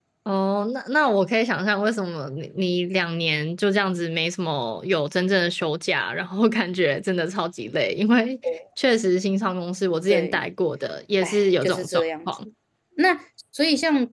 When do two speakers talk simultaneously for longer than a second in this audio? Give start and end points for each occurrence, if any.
11.2-12.4

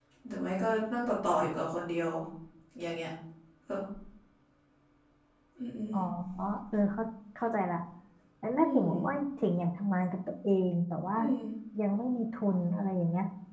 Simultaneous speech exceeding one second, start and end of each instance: none

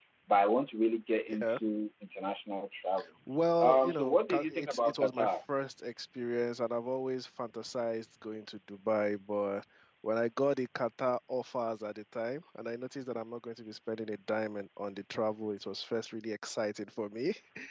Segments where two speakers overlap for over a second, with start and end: 3.6-5.3

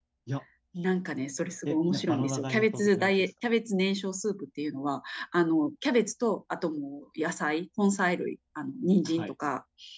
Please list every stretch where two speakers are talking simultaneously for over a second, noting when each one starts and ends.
1.6-3.3

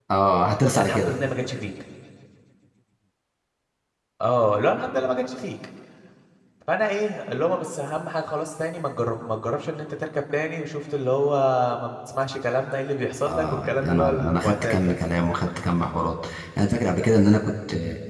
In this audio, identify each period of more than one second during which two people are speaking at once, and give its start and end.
13.3-14.9

